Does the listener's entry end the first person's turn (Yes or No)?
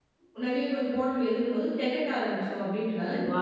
Yes